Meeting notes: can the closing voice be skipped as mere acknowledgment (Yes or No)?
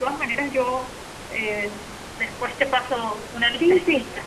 No